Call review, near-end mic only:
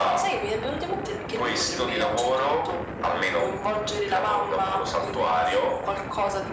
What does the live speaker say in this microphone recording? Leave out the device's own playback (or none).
none